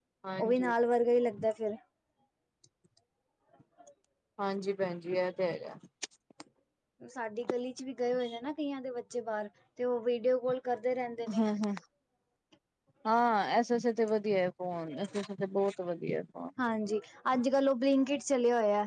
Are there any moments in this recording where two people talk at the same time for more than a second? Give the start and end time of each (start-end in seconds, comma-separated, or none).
none